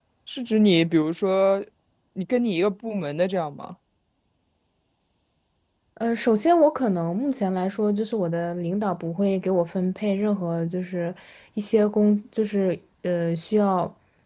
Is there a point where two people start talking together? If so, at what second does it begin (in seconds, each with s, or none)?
none